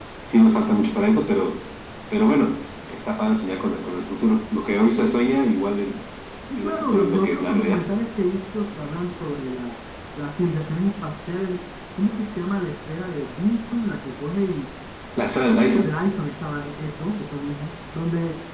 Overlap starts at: 6.6 s

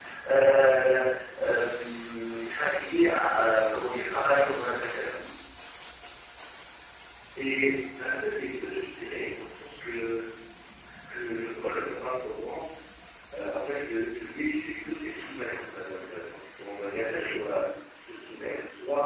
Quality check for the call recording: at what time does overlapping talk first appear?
none

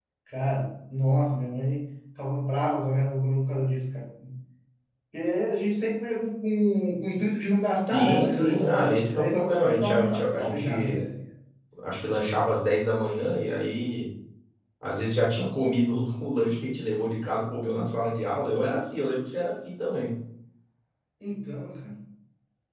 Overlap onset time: 7.9 s

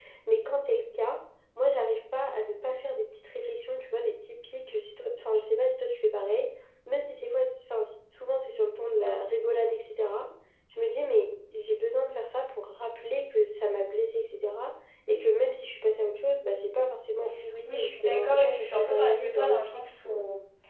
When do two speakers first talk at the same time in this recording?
17.6 s

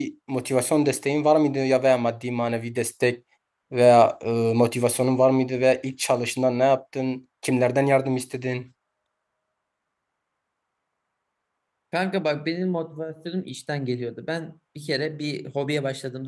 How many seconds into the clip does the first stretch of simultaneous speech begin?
none

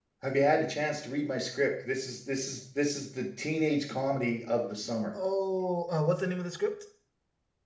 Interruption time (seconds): none

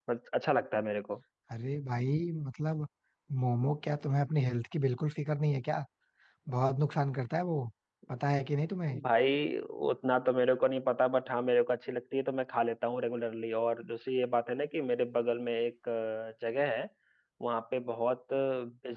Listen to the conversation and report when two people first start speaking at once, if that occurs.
none

